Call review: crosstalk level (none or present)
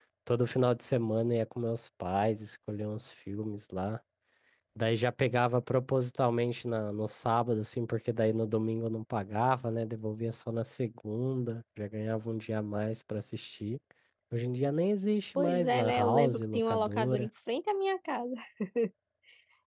present